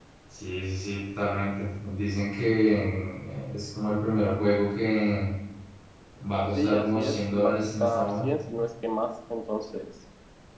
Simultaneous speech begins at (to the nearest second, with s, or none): 7 s